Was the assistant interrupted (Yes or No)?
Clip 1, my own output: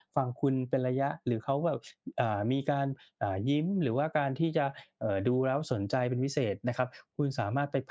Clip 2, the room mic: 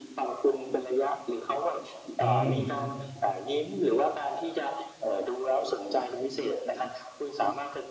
Yes